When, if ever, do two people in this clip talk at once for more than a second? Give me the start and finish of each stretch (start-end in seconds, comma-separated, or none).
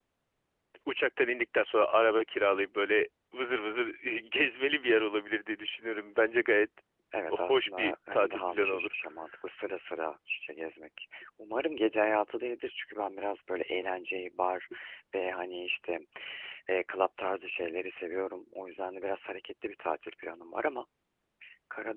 7.3-8.9